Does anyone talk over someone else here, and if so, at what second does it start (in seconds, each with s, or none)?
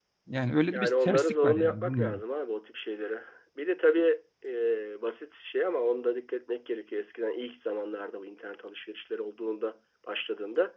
0.7 s